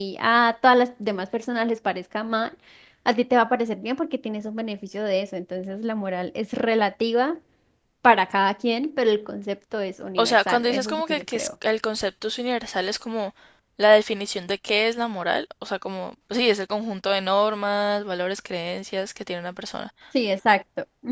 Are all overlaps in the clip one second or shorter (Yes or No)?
No